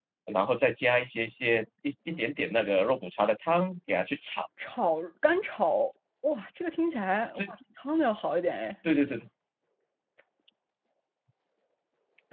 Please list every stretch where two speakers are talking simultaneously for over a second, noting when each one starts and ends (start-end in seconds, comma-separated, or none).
none